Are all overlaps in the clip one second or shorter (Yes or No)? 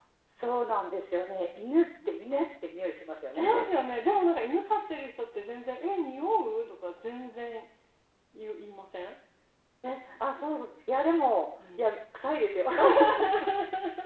Yes